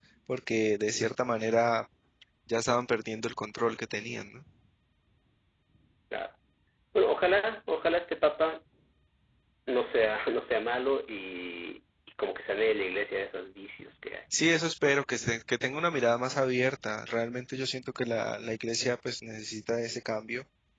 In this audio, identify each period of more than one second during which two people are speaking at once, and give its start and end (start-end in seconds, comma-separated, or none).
none